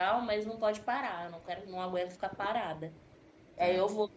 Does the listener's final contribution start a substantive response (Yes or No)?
No